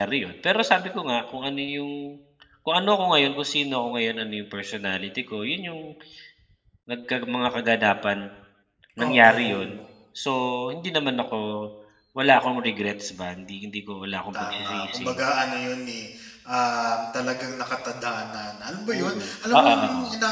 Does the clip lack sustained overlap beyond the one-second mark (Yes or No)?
No